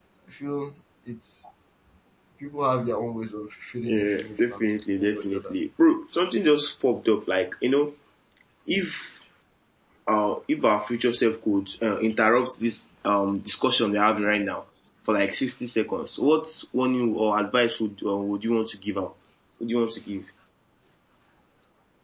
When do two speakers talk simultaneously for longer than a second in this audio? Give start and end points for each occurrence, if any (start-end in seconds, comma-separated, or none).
3.8-5.5